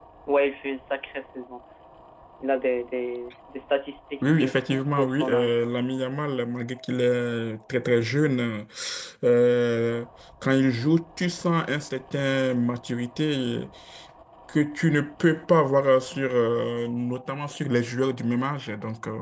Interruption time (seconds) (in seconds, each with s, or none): 4.2 s